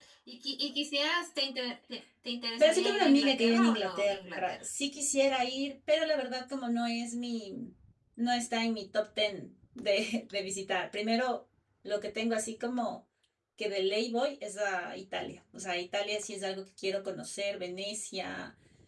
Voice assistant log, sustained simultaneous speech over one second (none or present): present